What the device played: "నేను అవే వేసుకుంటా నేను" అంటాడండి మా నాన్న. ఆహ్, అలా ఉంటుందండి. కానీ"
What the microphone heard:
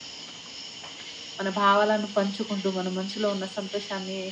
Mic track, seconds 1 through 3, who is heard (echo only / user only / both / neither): user only